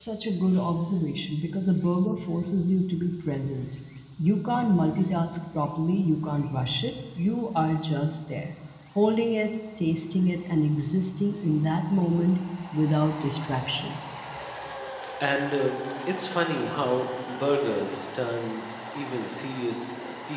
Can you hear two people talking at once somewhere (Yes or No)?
No